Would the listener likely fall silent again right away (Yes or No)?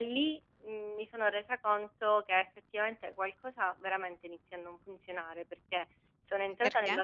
Yes